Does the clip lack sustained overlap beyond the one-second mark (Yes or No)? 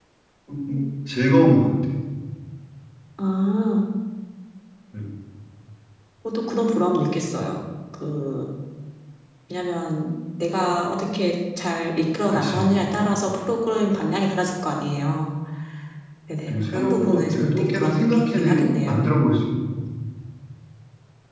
No